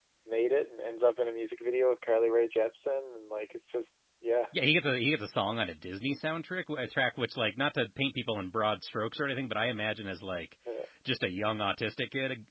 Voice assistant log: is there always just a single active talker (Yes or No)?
Yes